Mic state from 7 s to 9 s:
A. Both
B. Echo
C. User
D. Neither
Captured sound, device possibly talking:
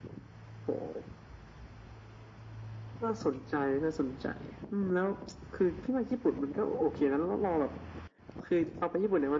B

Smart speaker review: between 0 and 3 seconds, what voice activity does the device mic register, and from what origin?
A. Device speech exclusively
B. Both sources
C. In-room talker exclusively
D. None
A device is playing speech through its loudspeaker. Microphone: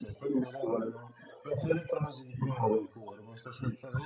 A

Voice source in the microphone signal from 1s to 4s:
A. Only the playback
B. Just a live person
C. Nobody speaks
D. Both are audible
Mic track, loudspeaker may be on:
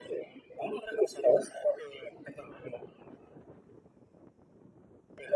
A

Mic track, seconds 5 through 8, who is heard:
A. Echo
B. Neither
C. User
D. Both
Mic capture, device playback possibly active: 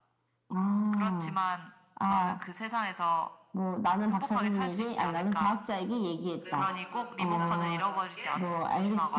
D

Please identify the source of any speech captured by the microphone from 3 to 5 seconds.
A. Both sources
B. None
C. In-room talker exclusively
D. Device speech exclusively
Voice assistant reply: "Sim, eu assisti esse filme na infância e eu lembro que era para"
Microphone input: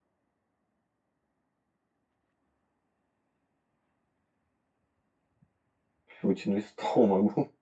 B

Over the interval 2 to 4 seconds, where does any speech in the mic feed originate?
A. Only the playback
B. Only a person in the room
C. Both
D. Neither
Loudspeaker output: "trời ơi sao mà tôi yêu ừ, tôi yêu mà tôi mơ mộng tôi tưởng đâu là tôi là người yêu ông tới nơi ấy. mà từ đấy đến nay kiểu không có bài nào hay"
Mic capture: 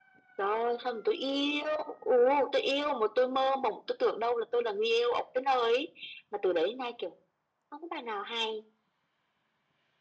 A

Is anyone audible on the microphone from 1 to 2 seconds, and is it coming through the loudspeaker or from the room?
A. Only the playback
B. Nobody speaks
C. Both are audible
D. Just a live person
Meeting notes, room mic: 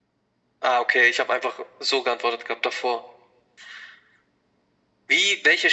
A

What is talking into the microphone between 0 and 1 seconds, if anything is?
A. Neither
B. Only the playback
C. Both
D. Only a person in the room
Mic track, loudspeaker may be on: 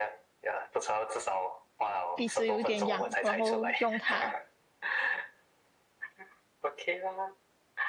B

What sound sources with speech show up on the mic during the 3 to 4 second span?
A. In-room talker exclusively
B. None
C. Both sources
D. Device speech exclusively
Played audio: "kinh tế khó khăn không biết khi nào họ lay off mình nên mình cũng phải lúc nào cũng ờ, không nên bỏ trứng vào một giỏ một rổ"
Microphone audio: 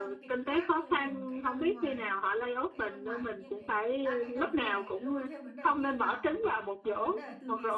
C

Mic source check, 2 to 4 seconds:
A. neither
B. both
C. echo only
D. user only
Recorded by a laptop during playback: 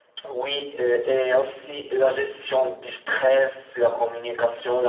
C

